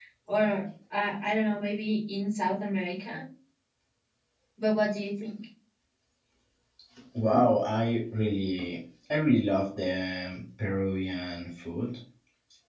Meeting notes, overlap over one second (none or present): none